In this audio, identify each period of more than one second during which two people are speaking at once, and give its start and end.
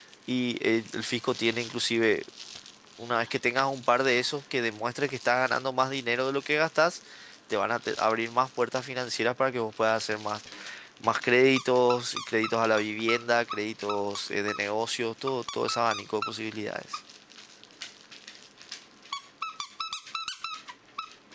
none

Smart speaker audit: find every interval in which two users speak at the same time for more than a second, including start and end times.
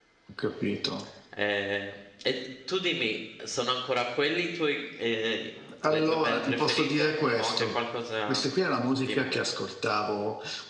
5.9-7.8

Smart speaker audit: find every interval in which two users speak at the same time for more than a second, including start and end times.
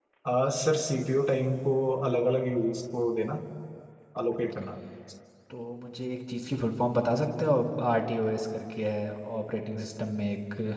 none

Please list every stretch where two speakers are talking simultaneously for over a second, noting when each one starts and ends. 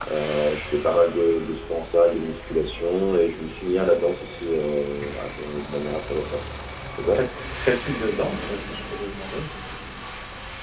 none

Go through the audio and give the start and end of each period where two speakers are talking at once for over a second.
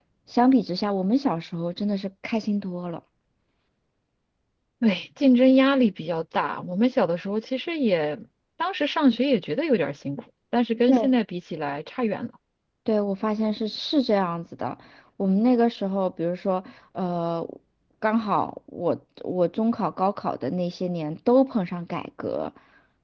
none

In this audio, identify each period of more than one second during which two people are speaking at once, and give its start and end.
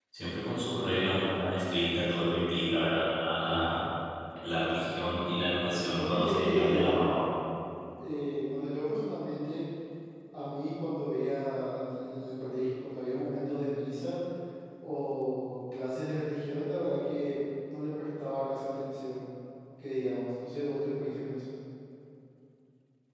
5.7-7.0

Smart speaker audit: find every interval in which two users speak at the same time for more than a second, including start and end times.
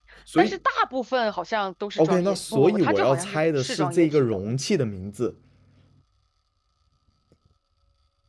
2.0-4.6

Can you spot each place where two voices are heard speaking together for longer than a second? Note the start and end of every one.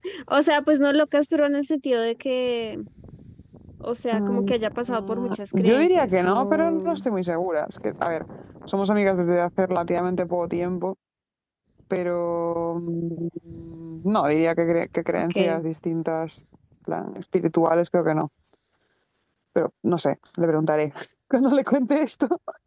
4.9-7.0

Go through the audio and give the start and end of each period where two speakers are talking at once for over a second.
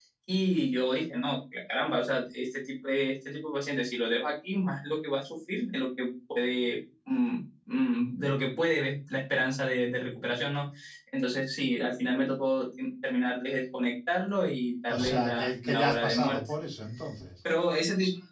14.9-16.4

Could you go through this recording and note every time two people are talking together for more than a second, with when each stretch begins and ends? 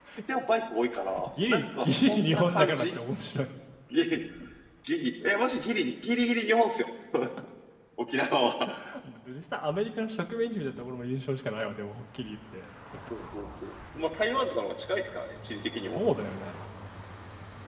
1.3-2.9

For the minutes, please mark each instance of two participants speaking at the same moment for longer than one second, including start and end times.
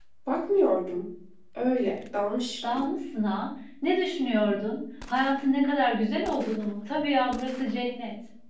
none

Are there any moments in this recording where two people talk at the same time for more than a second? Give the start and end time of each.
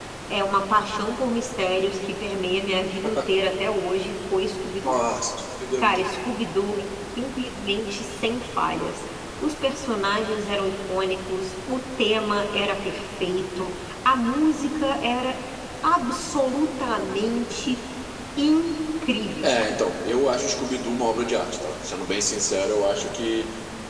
none

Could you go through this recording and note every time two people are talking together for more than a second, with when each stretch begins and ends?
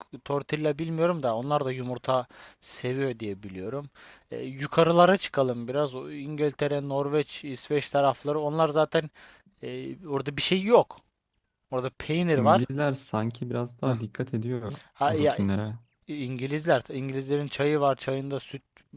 none

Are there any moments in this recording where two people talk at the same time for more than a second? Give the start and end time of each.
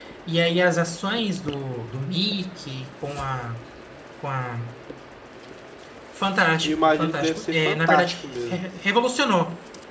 6.6-8.6

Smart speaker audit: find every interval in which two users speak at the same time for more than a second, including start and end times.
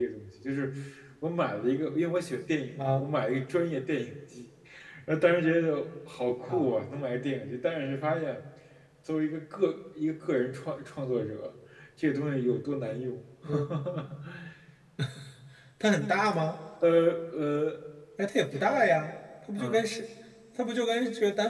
none

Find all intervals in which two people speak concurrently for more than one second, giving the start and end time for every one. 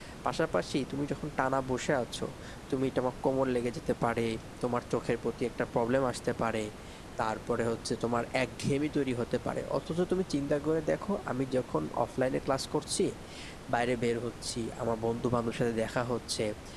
none

